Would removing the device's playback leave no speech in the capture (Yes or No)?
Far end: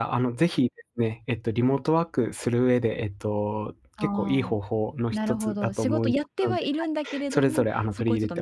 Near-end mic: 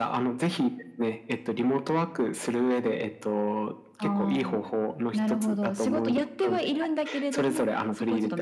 Yes